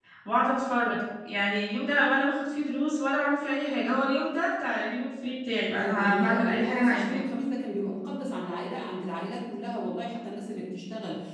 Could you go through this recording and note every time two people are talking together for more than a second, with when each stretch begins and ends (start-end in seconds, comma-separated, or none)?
5.7-7.2